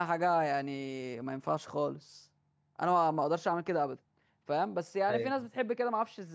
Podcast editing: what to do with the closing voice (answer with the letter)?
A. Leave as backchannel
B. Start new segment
A